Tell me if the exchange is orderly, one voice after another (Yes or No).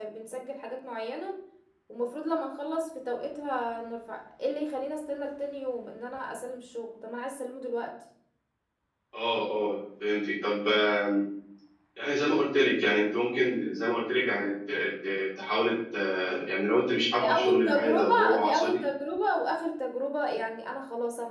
No